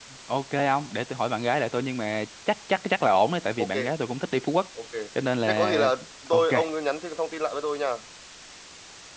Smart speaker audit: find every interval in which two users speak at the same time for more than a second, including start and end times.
none

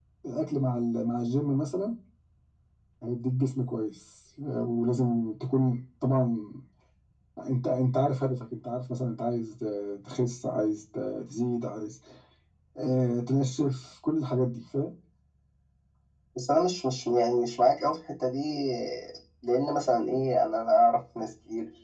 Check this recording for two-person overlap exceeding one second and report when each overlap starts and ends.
none

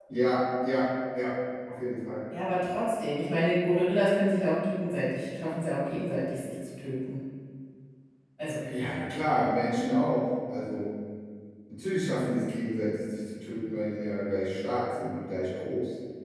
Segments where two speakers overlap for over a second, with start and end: none

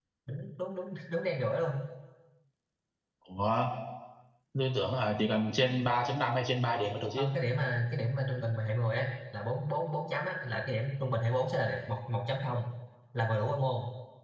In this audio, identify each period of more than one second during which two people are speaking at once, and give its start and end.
none

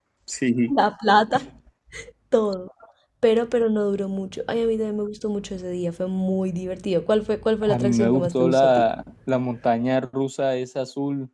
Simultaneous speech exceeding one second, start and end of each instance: 7.6-8.9

